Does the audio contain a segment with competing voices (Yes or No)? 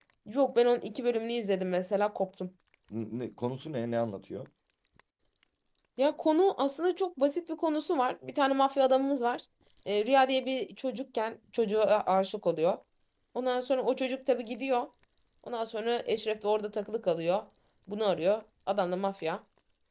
No